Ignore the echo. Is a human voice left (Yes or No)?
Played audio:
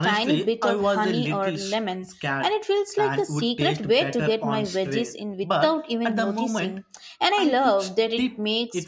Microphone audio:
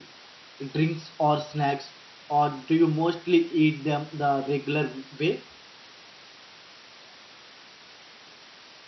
Yes